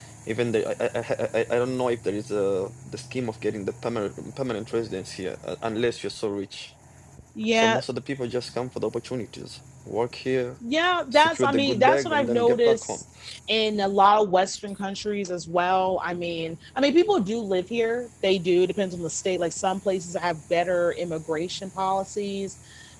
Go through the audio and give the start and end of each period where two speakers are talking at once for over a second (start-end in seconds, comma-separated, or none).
11.1-13.0